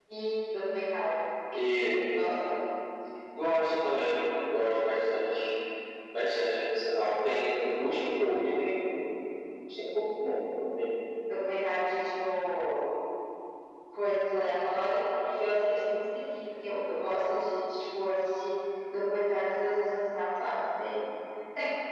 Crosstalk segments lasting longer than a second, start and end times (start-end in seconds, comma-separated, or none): none